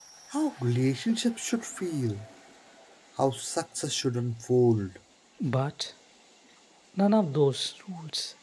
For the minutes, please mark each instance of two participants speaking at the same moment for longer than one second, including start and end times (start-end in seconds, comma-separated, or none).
none